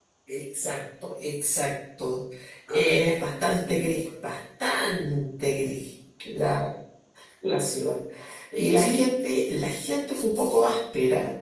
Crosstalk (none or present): present